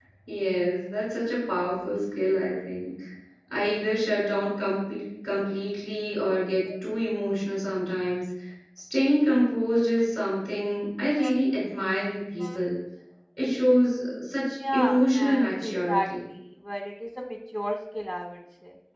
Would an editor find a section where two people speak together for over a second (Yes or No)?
Yes